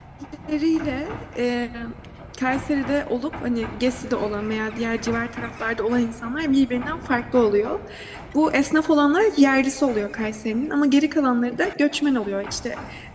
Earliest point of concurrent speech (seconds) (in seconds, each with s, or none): none